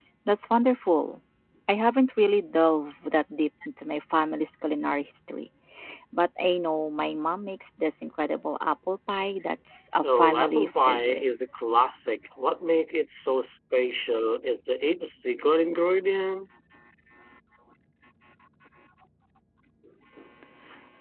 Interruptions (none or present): present